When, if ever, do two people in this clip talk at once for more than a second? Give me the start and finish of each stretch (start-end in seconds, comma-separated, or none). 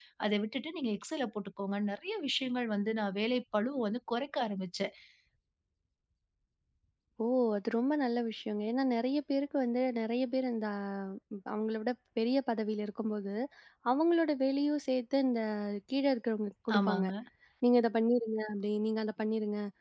none